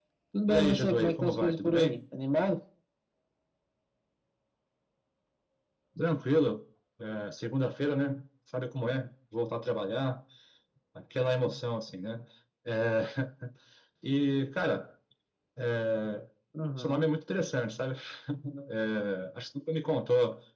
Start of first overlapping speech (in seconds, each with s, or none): 0.5 s